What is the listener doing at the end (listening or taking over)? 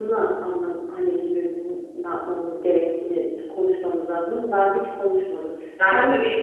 taking over